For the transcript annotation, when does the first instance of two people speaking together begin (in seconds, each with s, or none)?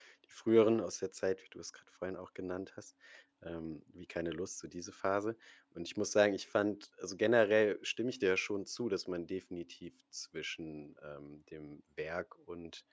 none